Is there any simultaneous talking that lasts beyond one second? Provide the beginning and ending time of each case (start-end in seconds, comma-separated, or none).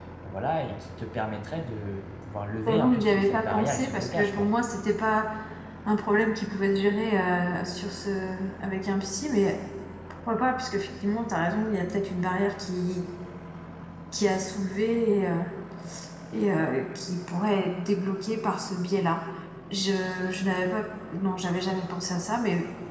2.7-4.5